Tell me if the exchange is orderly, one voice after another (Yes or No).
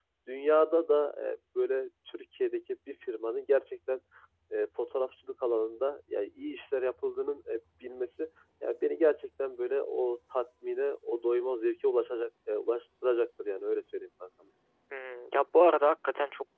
Yes